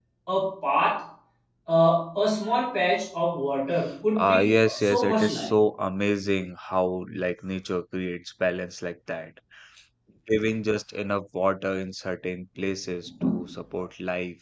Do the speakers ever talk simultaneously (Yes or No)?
Yes